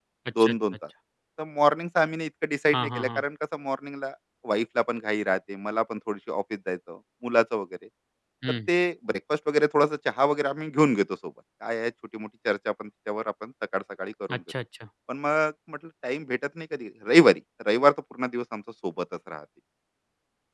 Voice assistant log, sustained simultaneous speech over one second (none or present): none